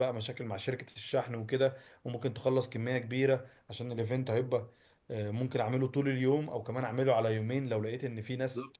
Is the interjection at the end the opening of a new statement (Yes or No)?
Yes